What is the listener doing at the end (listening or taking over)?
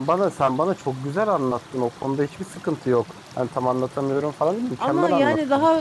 taking over